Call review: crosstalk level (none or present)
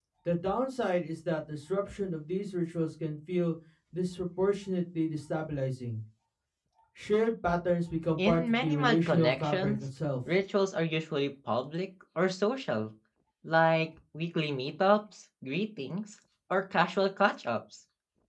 present